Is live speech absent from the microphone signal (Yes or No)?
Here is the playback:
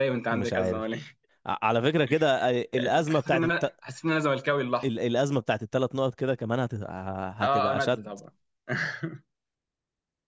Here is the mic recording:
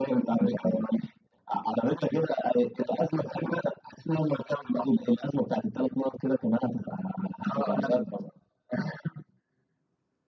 Yes